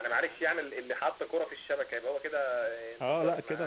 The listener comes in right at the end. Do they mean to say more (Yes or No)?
Yes